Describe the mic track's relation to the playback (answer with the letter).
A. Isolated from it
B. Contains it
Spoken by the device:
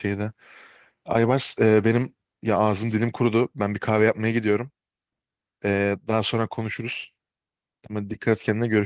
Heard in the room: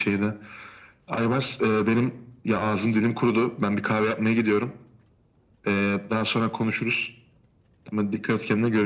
B